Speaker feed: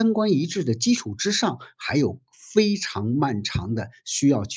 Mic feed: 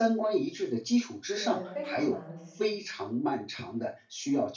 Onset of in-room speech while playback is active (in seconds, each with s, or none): 1.3 s